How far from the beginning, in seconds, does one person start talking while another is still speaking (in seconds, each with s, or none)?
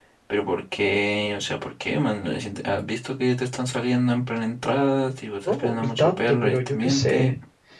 5.5 s